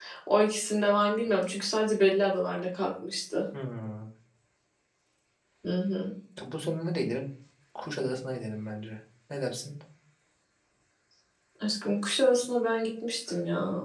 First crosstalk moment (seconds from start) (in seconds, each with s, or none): none